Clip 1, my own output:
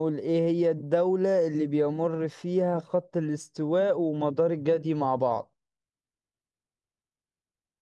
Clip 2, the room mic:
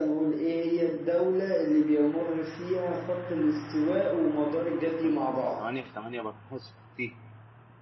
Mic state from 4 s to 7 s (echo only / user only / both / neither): both